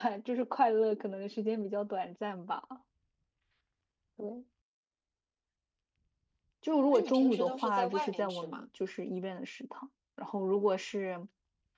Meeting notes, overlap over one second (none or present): present